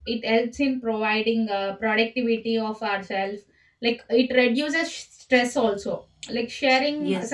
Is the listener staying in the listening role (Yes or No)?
Yes